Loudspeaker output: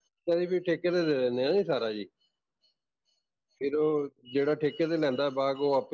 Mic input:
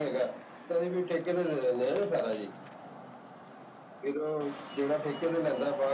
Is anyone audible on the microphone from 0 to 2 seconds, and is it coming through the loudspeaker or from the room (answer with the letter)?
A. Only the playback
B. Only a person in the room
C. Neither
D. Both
A